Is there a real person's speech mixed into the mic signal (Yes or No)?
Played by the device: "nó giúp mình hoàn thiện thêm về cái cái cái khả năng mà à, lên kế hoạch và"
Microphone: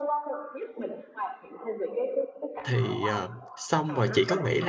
Yes